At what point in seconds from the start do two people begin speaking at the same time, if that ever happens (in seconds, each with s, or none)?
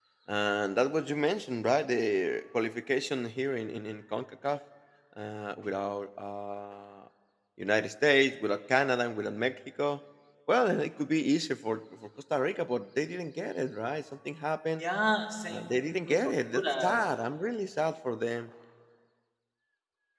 15.5 s